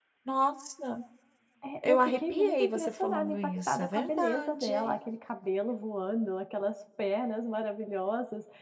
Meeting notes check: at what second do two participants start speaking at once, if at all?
2 s

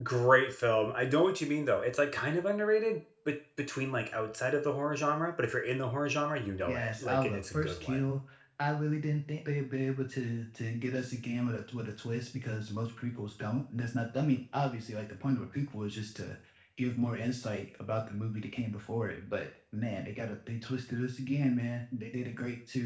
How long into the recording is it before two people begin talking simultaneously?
7 s

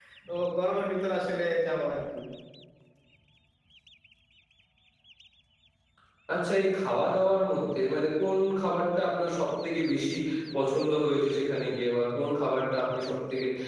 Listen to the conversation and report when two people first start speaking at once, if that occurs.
none

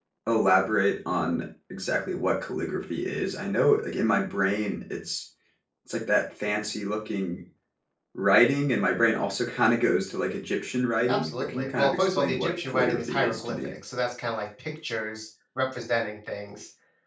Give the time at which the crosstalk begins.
11 s

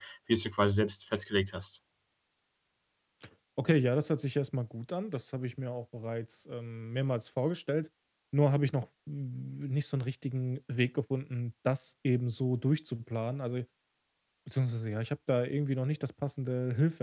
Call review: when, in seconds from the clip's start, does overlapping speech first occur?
none

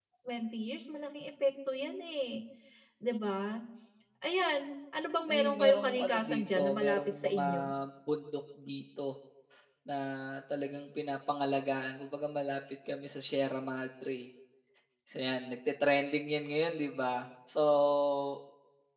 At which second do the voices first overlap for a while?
5 s

